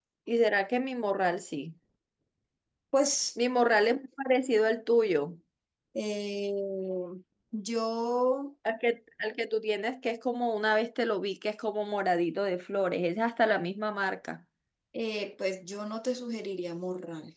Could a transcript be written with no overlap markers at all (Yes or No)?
Yes